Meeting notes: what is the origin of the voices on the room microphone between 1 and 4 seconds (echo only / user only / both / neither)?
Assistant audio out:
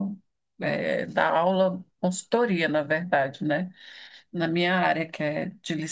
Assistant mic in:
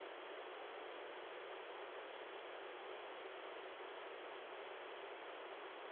neither